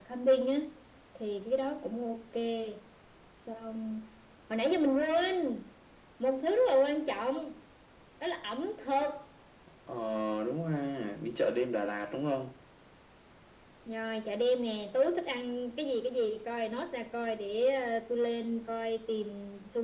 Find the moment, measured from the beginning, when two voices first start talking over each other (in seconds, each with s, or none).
none